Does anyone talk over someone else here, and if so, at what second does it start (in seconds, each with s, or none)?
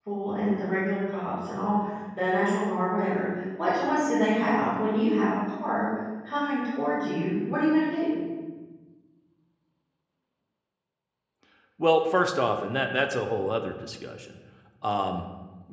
none